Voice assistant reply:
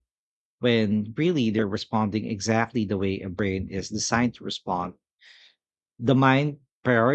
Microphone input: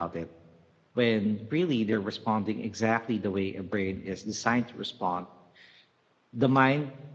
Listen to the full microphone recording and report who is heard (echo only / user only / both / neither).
echo only